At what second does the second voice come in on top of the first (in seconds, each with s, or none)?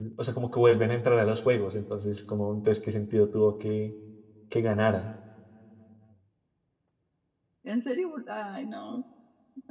none